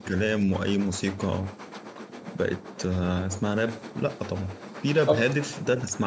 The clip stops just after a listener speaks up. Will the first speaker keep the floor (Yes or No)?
Yes